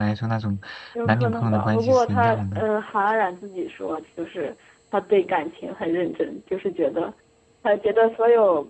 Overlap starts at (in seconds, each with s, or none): 1.1 s